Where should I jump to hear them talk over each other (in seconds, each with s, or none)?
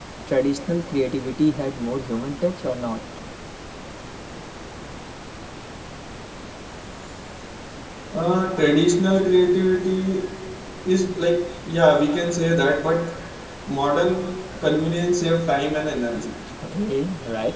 none